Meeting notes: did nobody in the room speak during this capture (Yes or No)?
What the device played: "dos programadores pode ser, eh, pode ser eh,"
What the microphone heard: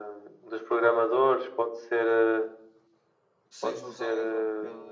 No